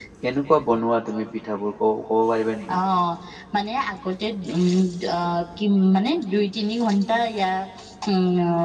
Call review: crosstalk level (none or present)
none